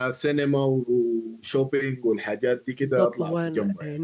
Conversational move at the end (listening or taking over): taking over